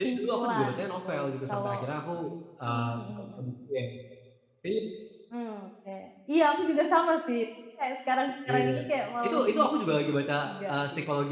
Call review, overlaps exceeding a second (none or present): present